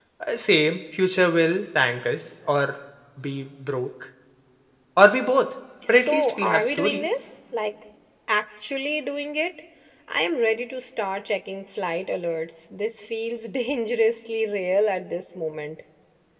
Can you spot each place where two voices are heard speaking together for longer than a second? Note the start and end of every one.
5.9-7.1

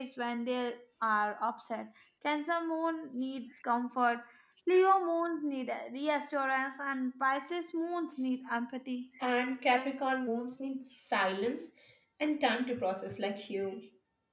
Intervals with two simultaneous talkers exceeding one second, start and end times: none

